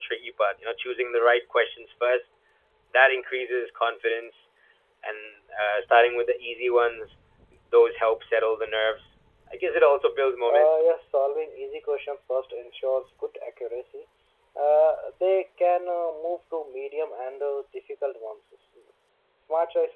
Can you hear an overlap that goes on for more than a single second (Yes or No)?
No